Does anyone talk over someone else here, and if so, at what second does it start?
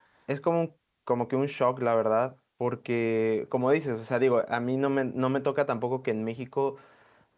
none

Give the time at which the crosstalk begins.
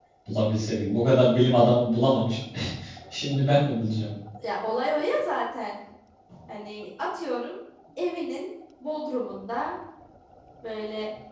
none

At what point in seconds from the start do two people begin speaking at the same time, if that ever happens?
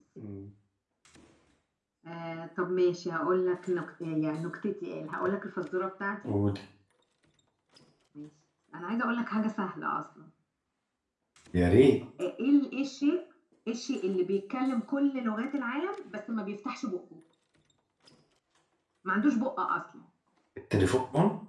none

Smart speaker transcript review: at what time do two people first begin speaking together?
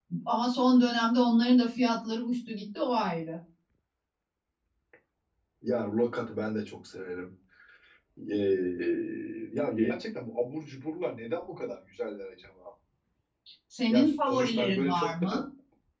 13.9 s

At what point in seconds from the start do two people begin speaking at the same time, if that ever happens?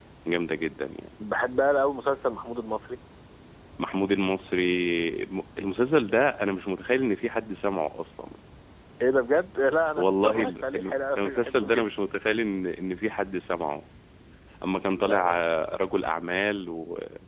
10.0 s

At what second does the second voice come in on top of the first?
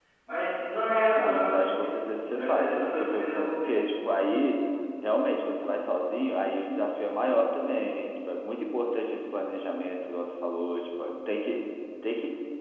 1.2 s

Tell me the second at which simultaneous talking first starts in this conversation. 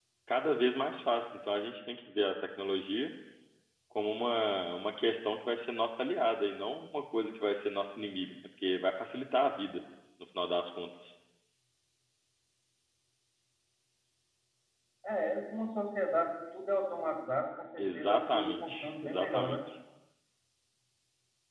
17.8 s

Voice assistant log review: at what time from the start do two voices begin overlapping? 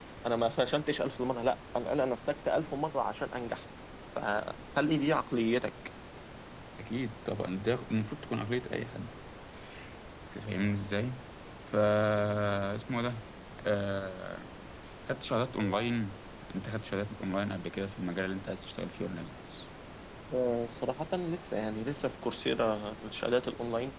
none

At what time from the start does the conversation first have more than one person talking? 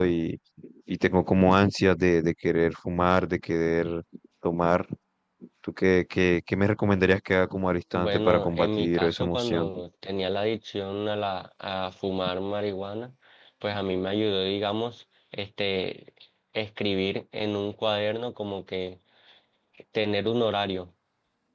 7.9 s

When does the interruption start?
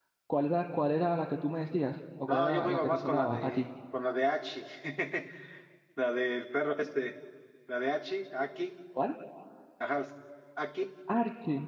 2.3 s

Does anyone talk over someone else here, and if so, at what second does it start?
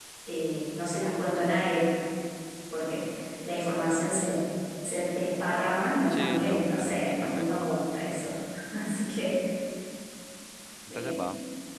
6.1 s

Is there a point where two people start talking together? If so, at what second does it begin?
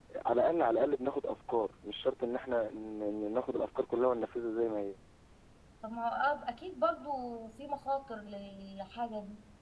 none

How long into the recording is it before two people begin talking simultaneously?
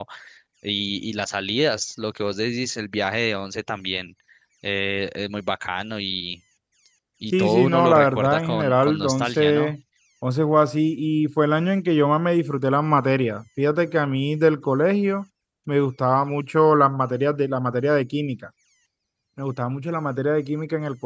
7.3 s

